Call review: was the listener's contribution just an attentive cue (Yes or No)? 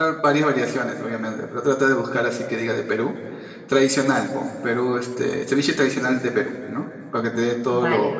No